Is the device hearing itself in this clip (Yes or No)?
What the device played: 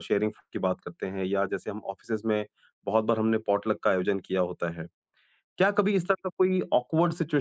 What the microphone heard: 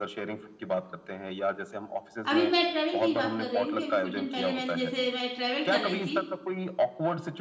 Yes